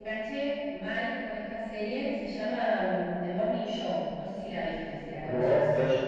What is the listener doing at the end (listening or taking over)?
taking over